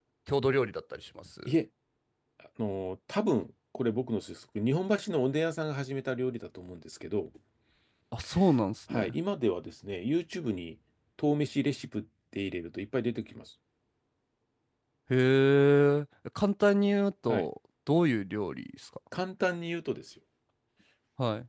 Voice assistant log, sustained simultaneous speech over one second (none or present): none